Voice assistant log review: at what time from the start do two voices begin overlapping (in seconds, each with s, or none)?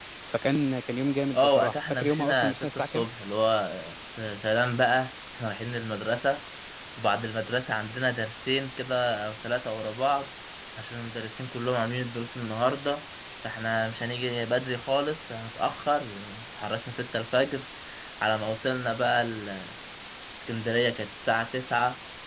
1.3 s